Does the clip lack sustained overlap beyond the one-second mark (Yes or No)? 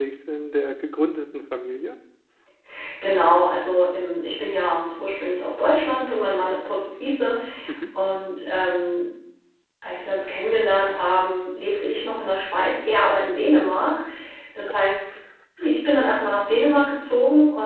Yes